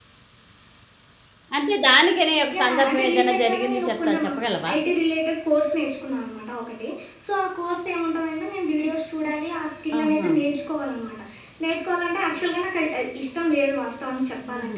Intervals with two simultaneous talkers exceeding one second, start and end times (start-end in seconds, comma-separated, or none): 2.6-4.2